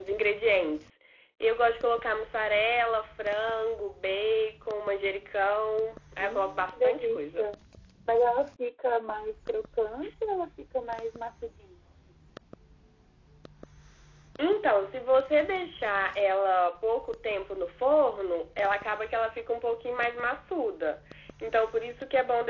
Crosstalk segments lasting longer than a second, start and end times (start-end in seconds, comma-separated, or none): 6.2-7.5